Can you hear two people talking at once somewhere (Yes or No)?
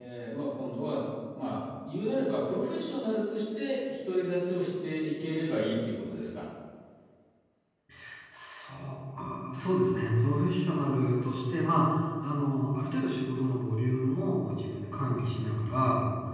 No